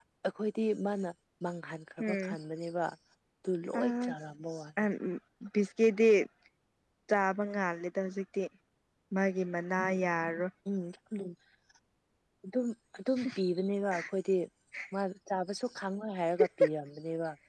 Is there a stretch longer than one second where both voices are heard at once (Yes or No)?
No